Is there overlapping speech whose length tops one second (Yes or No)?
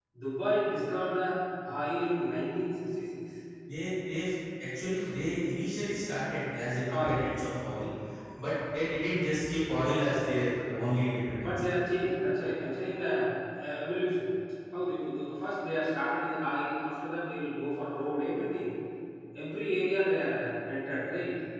No